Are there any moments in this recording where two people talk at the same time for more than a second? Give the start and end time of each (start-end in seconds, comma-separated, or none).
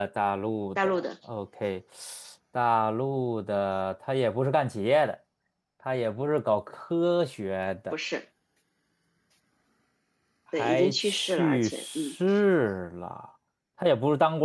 10.6-12.2